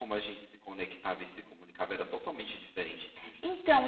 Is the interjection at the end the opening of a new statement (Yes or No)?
Yes